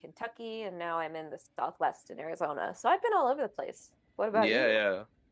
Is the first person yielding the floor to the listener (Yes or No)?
Yes